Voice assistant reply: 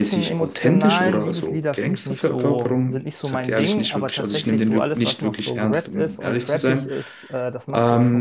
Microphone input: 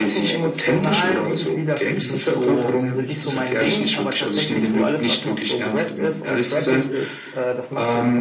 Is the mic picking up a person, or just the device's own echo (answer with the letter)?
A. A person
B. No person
A